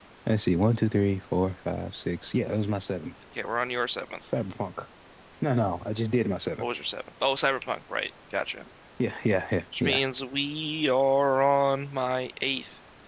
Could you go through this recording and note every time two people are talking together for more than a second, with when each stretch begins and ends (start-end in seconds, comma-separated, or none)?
none